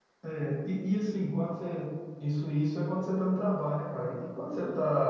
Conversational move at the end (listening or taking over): listening